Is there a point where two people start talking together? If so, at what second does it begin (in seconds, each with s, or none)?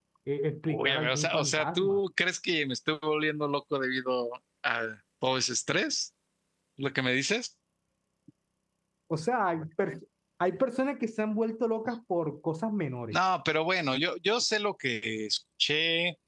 0.7 s